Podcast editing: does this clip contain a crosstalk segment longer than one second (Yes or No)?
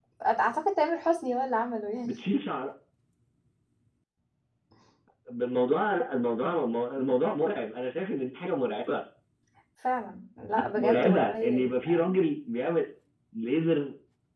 Yes